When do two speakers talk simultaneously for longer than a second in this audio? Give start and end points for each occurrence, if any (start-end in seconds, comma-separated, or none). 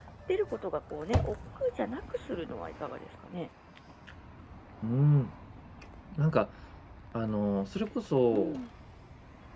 none